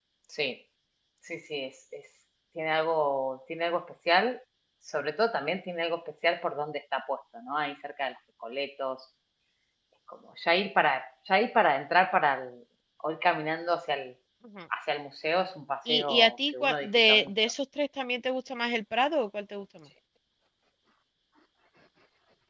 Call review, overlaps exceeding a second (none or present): present